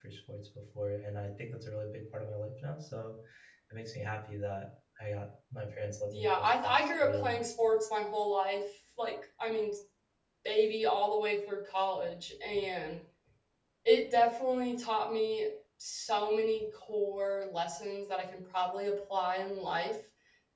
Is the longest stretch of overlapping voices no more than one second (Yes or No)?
No